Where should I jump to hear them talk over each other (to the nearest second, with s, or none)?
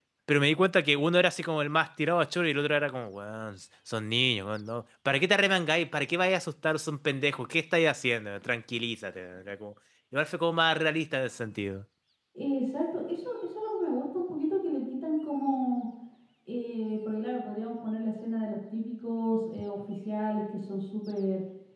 none